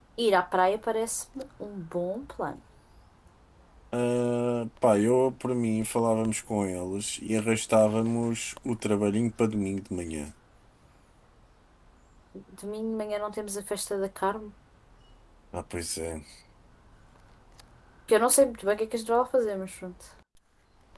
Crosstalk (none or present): none